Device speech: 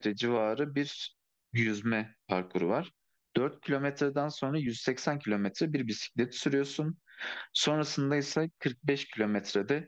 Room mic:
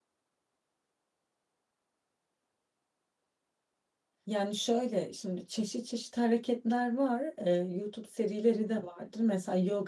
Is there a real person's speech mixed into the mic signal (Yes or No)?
Yes